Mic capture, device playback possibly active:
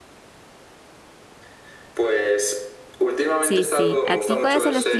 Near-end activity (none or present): present